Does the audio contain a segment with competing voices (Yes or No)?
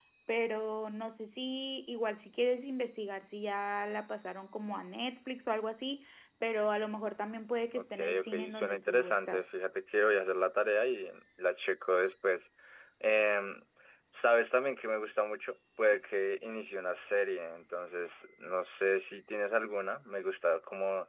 Yes